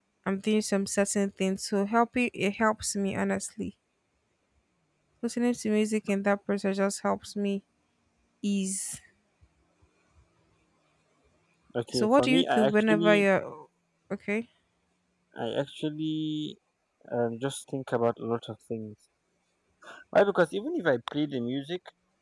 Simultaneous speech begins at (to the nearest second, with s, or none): 12 s